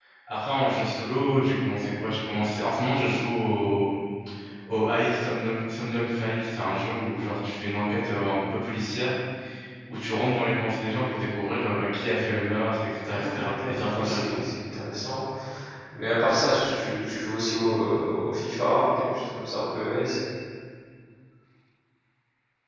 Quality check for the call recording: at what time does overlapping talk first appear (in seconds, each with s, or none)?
13.1 s